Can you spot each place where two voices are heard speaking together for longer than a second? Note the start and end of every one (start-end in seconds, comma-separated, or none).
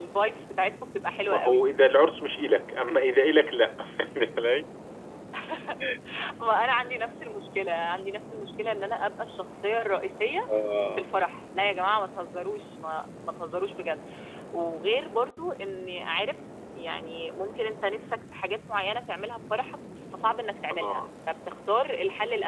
none